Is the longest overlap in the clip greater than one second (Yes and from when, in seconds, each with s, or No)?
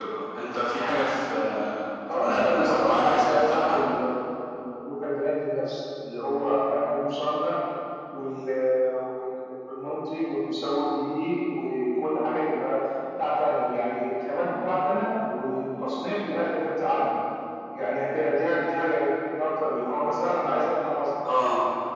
Yes, from 2.1 s